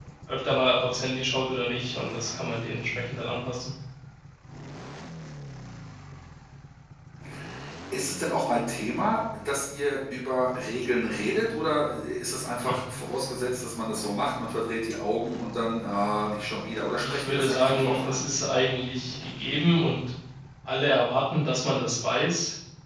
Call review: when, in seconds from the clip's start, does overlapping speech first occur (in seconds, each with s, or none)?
17.0 s